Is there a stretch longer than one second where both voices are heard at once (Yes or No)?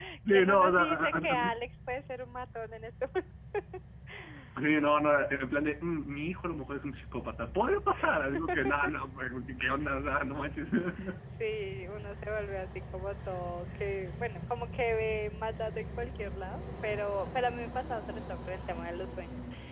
Yes